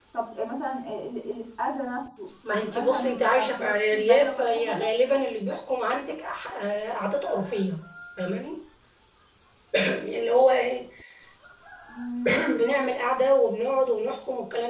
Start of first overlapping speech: 2.6 s

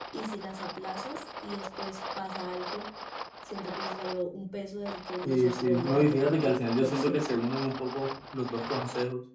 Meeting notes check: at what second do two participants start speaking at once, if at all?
5.2 s

